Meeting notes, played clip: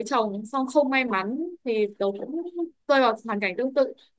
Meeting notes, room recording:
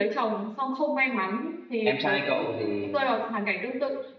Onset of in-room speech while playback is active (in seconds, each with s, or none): 1.8 s